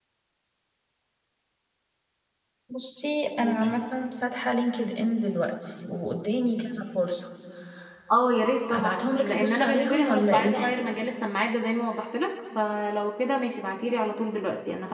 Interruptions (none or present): present